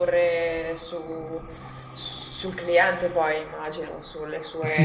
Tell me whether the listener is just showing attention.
No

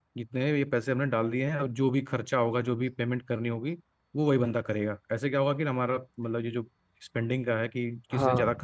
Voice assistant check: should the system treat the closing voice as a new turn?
No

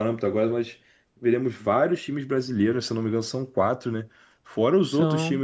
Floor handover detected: No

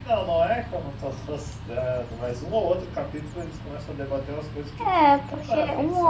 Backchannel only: No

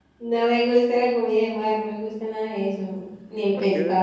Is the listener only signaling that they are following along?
Yes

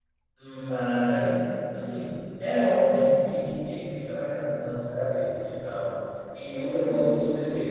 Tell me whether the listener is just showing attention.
Yes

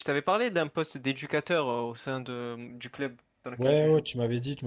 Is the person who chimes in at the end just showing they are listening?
No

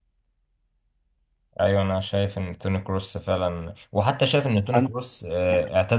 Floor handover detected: No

